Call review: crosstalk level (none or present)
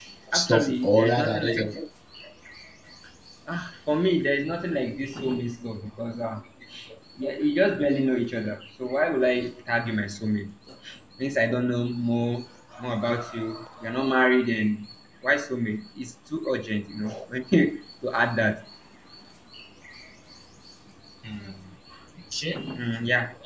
present